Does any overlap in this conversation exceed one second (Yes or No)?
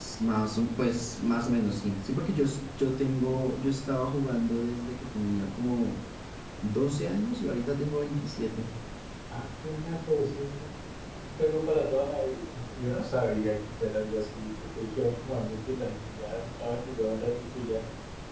No